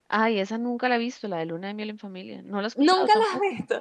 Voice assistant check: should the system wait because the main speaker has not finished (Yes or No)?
No